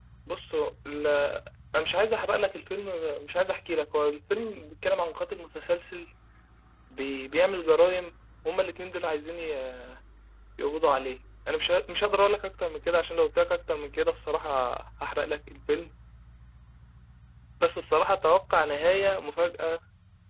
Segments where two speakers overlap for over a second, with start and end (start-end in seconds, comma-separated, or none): none